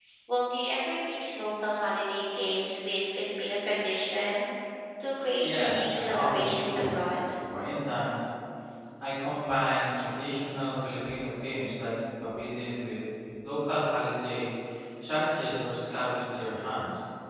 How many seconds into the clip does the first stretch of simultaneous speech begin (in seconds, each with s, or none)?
5.4 s